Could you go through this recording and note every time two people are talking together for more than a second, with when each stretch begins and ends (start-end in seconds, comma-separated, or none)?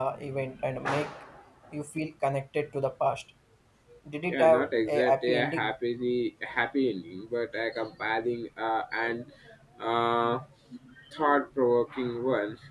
4.3-5.7